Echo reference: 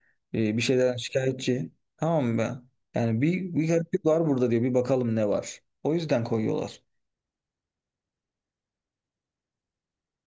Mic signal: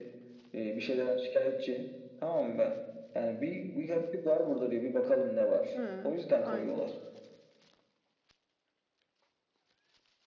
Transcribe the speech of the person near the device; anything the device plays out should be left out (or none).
He, aynen.